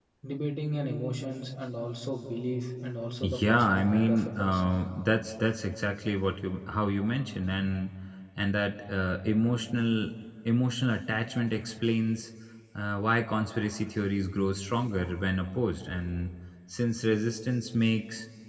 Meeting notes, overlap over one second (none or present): present